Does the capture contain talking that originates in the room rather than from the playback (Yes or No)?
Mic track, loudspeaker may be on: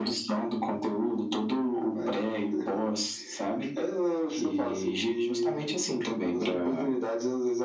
No